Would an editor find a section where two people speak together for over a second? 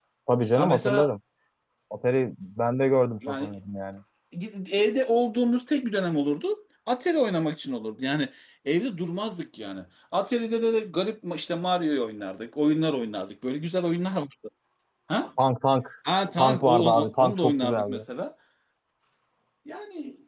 Yes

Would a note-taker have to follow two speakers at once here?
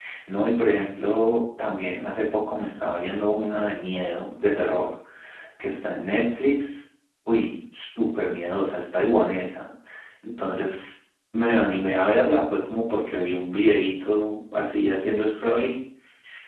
No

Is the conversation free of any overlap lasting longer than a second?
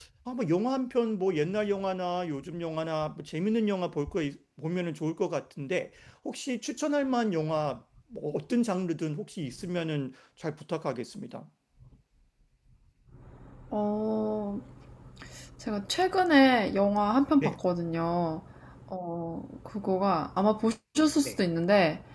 Yes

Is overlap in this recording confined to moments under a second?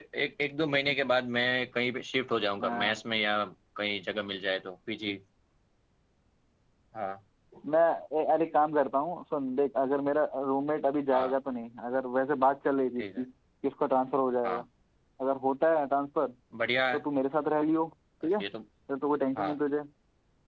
Yes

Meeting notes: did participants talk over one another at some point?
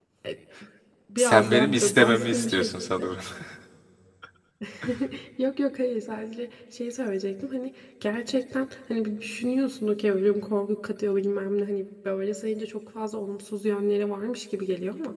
Yes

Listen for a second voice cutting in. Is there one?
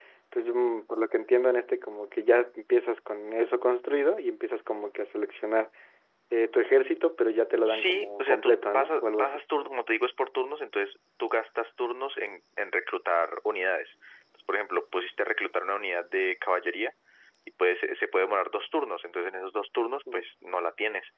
Yes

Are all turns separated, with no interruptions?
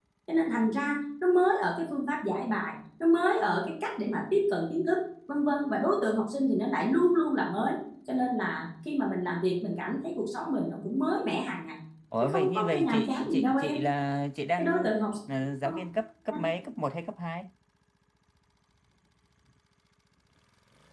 No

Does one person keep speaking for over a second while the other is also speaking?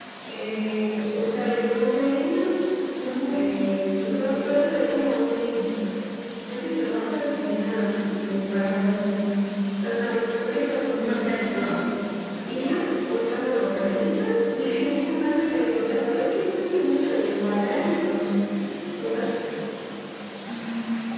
No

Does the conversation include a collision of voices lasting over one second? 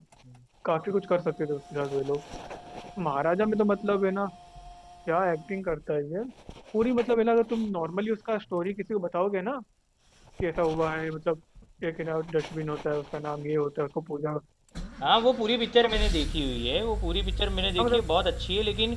No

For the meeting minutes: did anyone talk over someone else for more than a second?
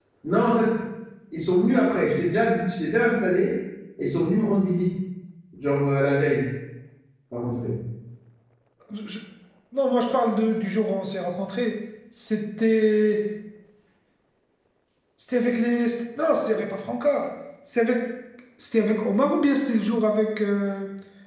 No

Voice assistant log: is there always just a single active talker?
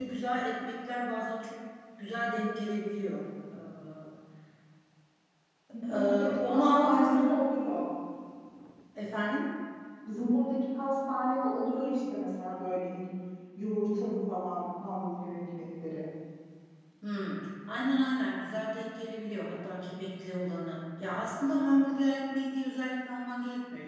No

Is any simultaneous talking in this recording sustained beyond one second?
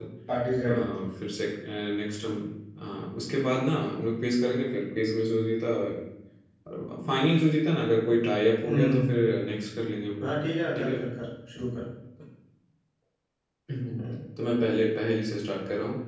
No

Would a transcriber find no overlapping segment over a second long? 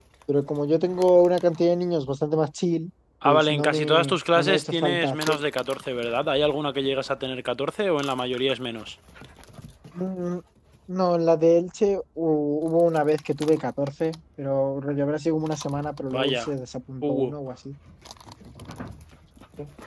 No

